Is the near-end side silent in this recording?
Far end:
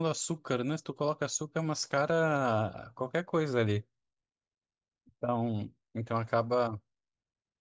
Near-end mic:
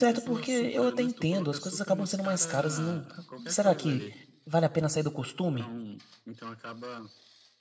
No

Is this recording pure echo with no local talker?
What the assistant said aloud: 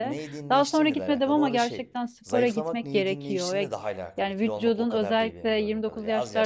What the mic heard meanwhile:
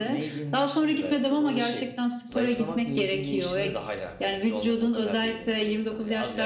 Yes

